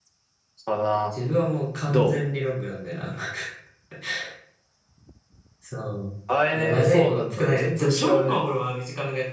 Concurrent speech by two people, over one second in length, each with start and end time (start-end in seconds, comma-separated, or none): 6.5-8.4